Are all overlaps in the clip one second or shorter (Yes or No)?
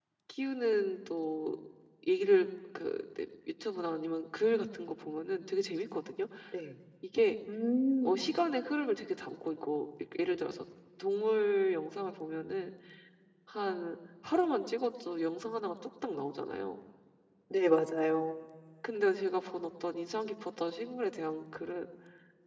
Yes